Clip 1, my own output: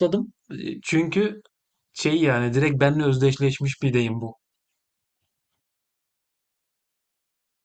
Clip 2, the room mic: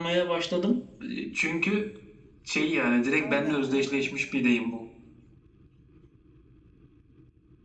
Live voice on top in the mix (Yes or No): No